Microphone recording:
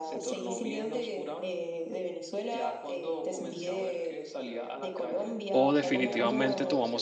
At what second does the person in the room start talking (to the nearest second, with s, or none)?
6 s